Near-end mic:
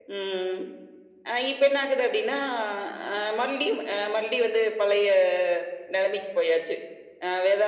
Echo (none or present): present